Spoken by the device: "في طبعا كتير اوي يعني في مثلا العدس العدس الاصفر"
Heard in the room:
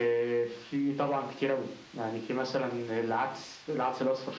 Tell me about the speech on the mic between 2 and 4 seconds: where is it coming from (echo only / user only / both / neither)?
echo only